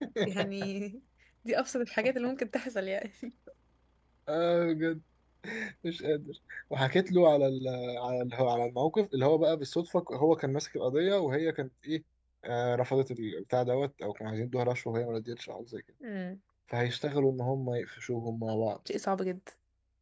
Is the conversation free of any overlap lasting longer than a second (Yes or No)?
Yes